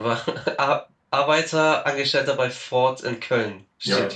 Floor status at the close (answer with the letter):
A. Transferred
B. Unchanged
A